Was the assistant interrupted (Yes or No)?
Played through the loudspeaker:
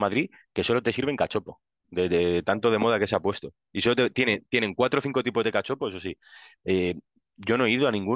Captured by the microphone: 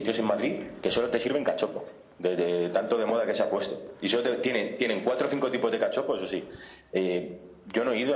No